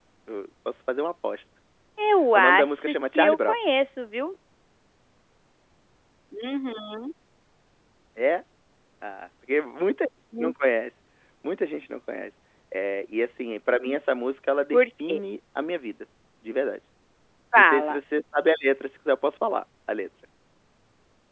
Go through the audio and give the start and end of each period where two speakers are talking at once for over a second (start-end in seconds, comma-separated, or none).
2.4-3.6